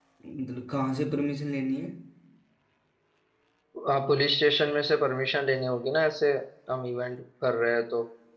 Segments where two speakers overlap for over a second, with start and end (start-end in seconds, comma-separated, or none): none